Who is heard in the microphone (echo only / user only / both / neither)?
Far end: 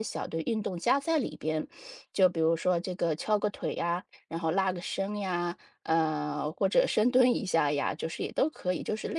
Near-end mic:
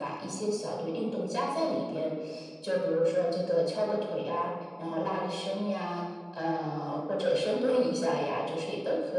echo only